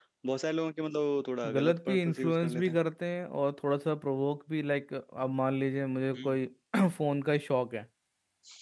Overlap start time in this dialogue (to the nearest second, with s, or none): 1 s